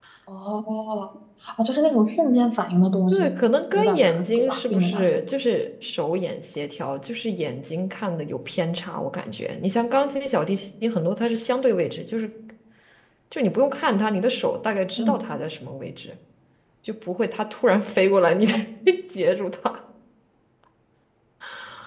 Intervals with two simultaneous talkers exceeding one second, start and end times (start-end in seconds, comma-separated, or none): 3.7-5.1